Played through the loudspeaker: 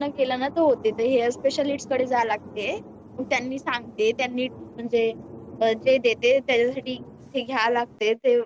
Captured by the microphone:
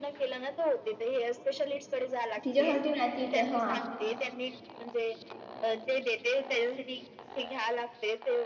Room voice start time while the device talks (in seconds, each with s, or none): 2.4 s